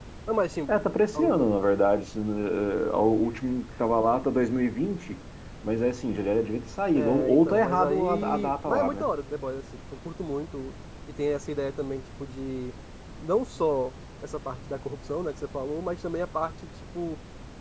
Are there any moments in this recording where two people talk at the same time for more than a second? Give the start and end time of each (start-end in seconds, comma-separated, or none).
7.0-9.1